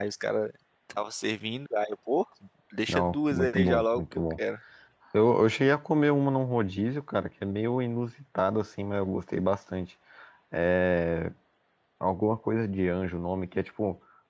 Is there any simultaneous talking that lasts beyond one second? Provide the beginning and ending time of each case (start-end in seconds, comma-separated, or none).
2.9-4.2